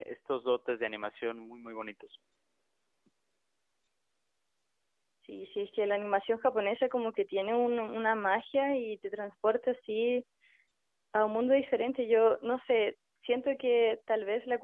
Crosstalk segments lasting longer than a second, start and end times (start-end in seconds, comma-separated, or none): none